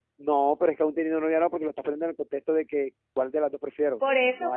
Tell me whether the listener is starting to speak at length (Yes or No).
Yes